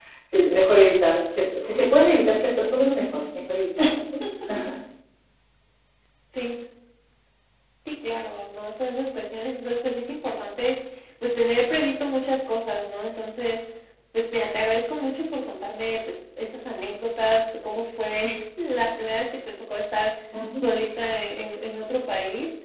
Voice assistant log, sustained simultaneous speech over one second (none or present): none